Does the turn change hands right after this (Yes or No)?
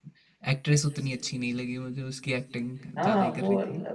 Yes